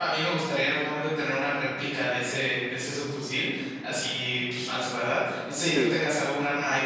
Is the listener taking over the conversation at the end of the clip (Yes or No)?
No